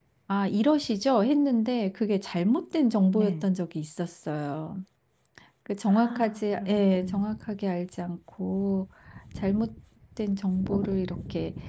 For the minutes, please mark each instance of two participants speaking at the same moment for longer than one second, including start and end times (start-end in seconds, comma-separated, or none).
5.9-7.2